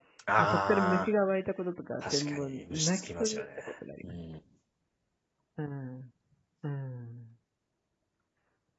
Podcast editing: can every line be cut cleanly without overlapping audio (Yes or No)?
No